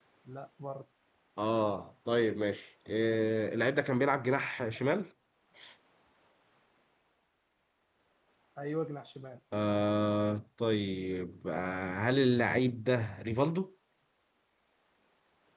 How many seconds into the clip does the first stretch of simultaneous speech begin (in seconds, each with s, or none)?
none